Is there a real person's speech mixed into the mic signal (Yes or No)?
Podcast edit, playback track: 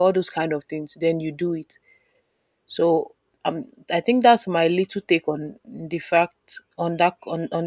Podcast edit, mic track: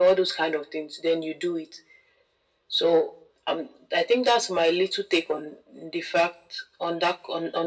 No